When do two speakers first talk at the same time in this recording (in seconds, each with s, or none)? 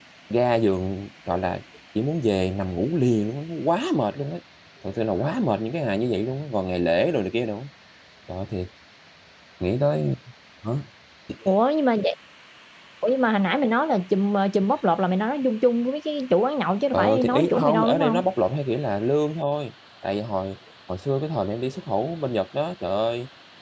16.9 s